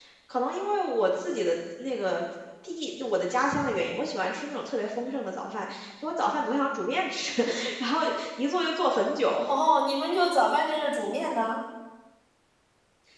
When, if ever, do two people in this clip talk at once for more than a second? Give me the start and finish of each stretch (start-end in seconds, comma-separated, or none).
none